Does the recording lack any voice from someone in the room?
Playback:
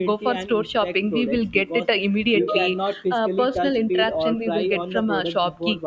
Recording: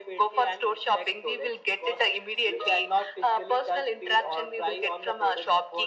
Yes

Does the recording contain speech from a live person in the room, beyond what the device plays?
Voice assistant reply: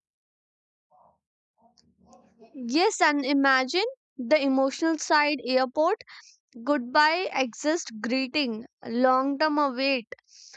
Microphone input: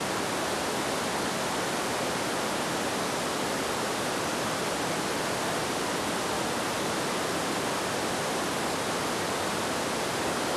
No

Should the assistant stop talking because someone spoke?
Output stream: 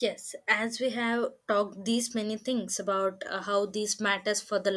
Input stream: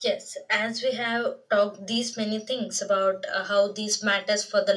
No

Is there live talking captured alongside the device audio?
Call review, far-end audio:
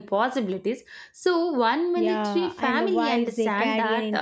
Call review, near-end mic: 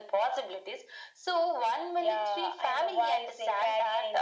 No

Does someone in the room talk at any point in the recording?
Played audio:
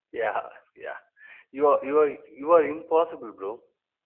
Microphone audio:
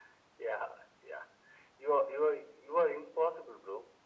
No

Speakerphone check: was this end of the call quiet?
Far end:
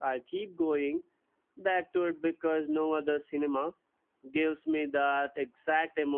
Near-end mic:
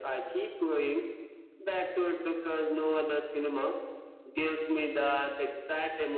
Yes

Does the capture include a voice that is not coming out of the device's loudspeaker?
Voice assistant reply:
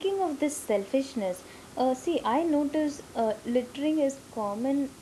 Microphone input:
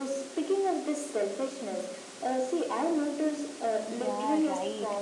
Yes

